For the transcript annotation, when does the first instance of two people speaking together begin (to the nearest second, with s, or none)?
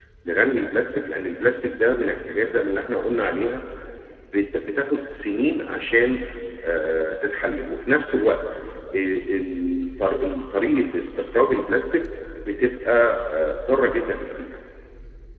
none